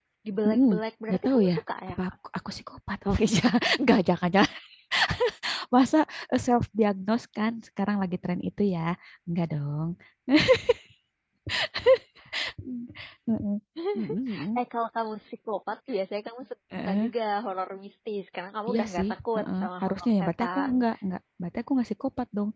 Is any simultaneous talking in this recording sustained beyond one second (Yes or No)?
Yes